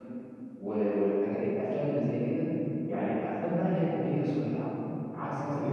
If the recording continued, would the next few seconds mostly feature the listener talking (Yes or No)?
No